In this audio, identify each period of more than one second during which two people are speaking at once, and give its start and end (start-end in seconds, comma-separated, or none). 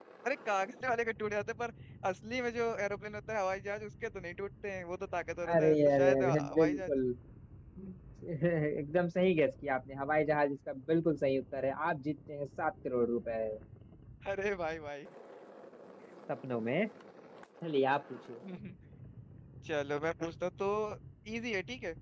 5.5-6.9